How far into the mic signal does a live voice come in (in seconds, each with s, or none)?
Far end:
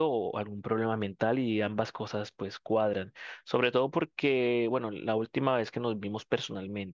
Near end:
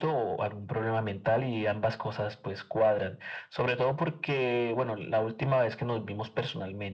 none